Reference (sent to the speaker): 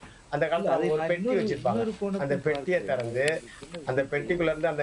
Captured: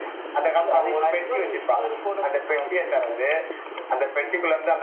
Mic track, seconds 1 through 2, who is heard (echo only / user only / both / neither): echo only